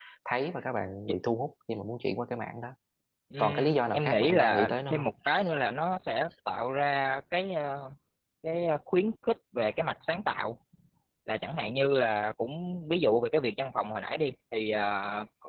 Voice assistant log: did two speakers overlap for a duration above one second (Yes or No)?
Yes